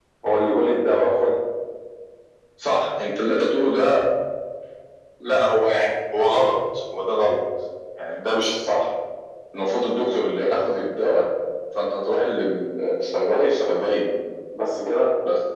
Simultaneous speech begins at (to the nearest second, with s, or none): none